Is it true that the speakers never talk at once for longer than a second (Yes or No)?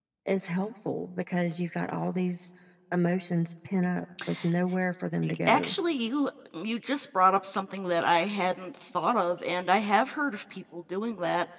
Yes